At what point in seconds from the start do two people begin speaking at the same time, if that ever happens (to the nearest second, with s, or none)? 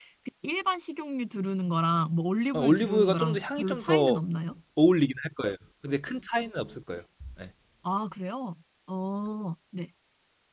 3 s